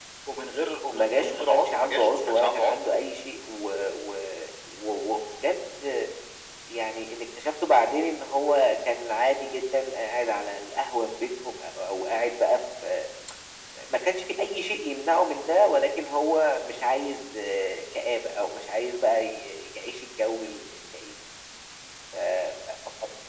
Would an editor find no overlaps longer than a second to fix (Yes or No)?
No